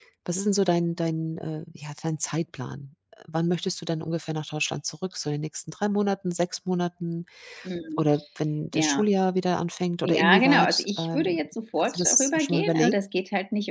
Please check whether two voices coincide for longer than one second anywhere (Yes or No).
Yes